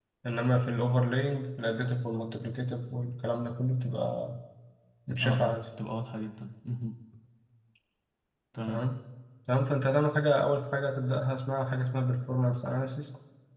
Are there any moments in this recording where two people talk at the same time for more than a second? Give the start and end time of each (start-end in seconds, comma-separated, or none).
none